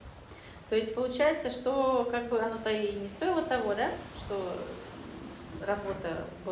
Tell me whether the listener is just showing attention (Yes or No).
Yes